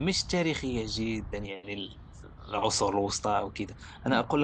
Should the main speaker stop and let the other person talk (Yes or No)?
No